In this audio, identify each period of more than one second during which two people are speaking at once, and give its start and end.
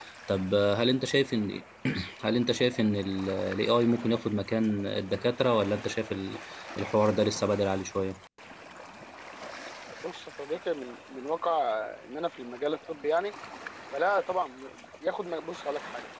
none

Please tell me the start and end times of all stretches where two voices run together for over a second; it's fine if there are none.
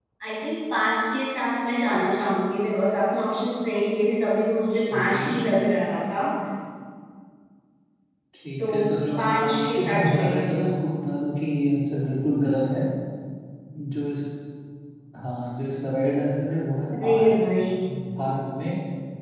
9.2-10.7

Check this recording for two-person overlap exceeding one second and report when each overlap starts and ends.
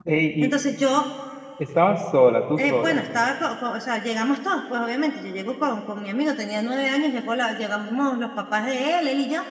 none

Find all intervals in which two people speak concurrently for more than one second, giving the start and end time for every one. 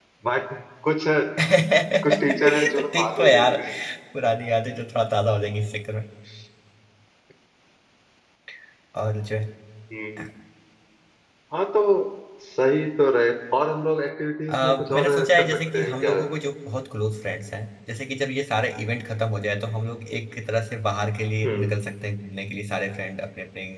2.0-3.5, 14.5-16.1

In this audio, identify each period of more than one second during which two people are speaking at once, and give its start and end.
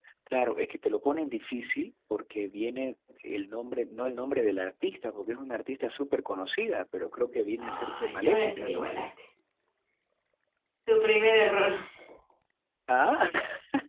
7.6-8.9

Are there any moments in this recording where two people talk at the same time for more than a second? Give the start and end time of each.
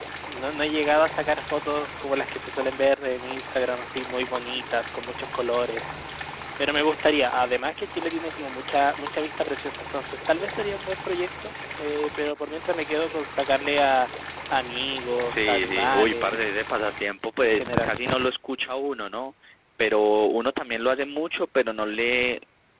15.2-16.5

